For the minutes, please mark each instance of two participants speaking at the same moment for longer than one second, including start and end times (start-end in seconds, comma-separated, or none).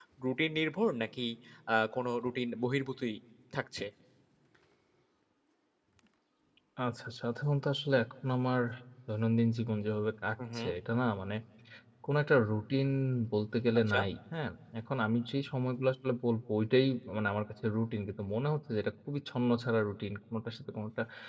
none